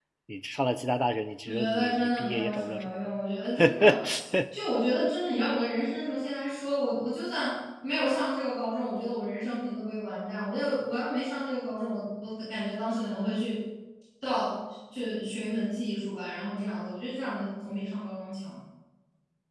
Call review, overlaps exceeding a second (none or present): present